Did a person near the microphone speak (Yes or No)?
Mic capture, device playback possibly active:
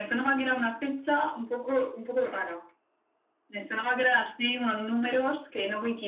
No